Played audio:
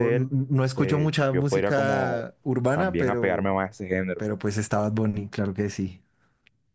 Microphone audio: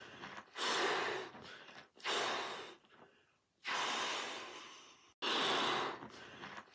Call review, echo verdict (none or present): none